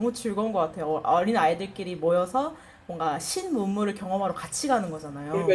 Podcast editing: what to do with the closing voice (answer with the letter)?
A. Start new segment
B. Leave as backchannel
A